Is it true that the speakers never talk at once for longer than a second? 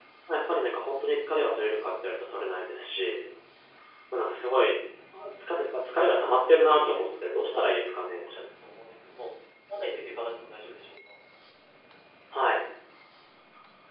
No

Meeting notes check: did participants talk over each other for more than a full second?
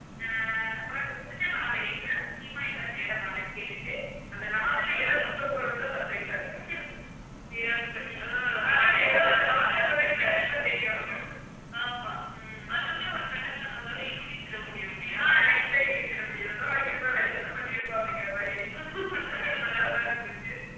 Yes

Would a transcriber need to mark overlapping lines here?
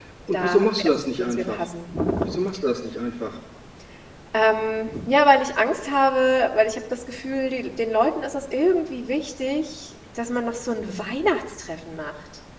Yes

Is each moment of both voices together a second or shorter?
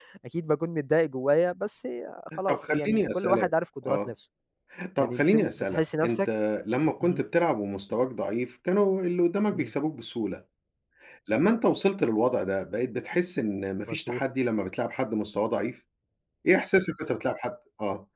No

